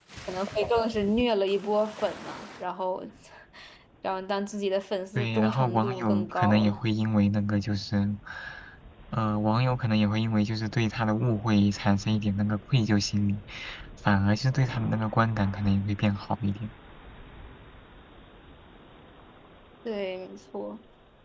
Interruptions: present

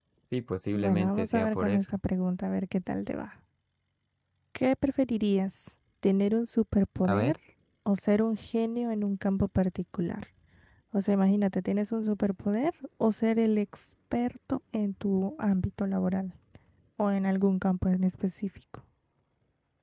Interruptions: present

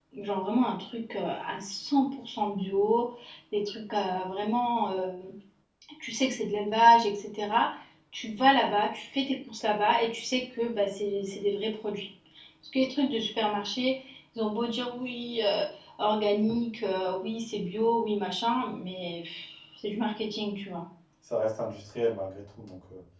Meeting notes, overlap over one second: none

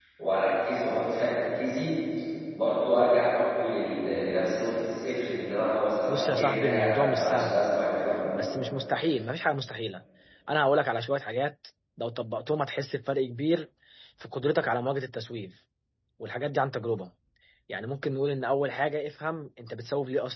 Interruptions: present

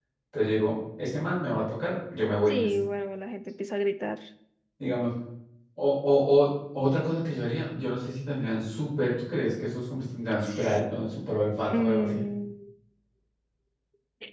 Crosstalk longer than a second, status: none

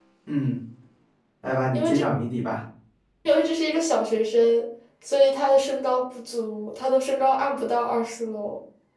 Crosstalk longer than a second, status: none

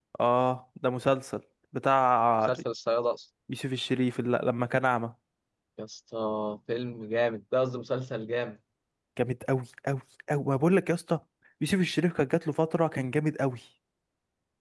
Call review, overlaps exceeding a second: none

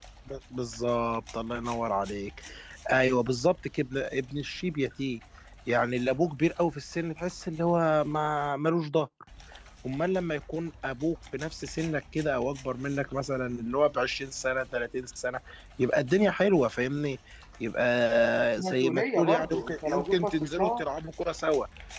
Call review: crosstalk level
present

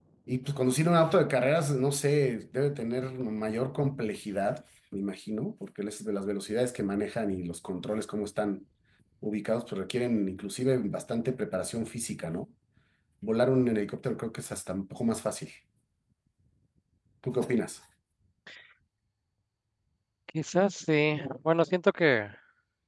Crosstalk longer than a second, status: none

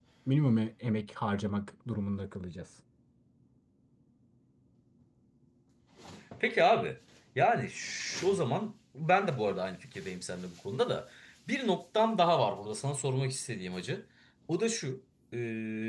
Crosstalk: none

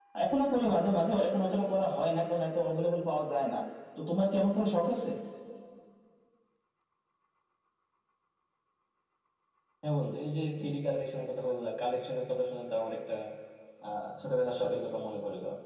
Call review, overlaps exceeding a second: none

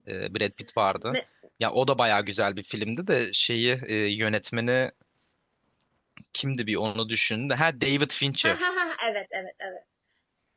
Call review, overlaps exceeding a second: none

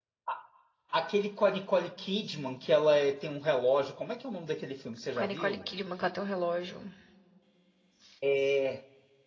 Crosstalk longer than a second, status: none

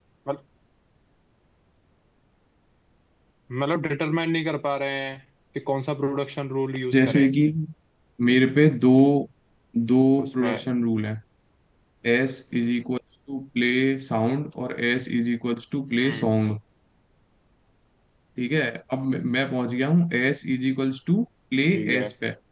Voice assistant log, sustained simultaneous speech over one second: none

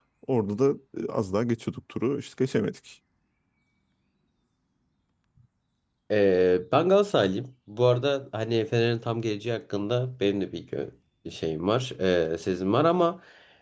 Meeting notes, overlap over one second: none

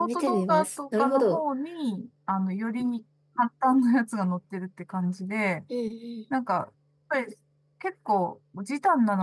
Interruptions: present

